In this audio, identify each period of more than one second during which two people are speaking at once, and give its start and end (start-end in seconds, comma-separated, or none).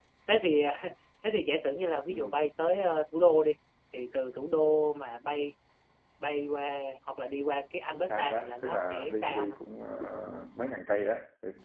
7.9-9.6